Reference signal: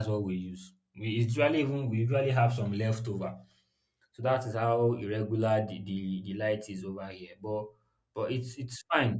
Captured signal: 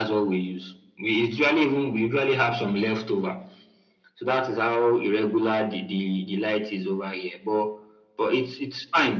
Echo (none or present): present